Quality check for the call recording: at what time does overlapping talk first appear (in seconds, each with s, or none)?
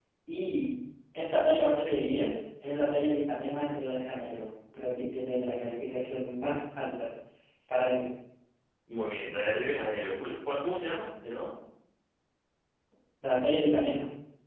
none